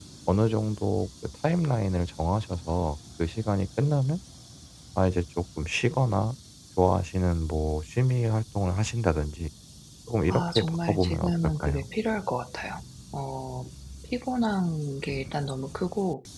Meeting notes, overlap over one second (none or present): present